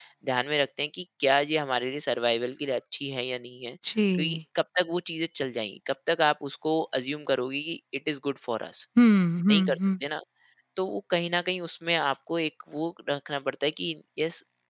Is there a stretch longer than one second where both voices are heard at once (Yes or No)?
No